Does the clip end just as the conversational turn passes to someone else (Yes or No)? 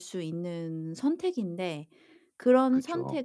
No